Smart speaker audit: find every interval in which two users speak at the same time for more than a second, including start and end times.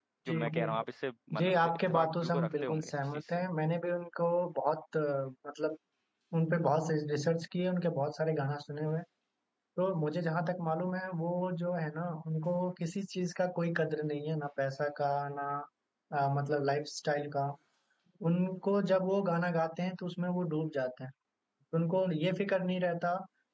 1.4-3.2

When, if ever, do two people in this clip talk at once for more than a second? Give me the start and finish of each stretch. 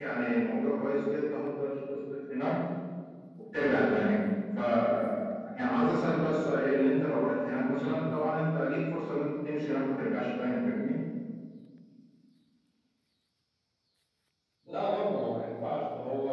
none

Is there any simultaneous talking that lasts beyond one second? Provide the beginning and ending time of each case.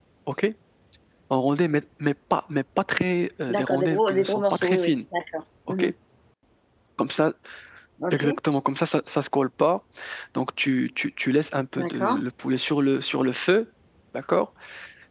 3.5-4.9

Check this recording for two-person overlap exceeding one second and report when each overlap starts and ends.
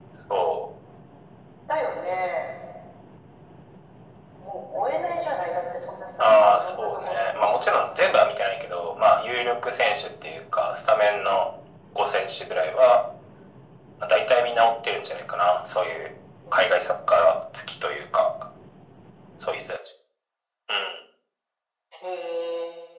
6.2-8.1

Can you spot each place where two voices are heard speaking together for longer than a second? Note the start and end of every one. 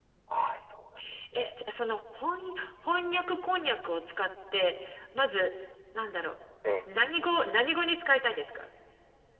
none

